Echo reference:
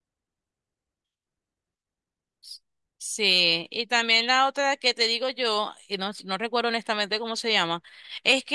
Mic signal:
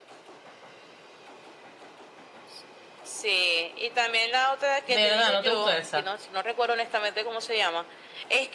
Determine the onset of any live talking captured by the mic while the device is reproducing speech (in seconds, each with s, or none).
4.9 s